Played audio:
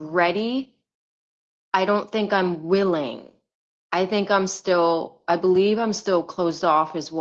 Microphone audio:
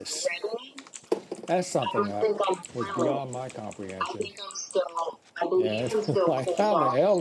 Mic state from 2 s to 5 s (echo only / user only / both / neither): both